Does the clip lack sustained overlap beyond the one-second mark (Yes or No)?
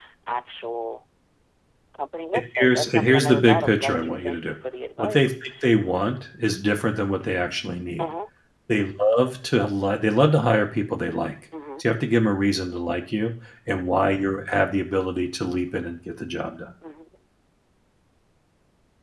No